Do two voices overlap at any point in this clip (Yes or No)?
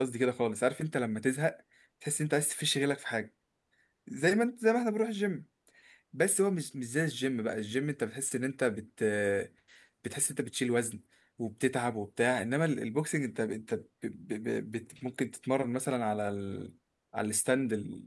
No